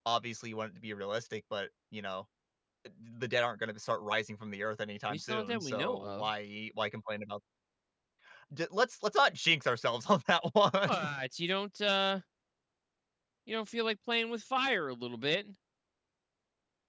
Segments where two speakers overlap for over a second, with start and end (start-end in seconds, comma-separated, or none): 5.1-6.3